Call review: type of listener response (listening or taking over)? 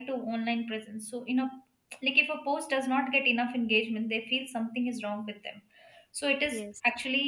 listening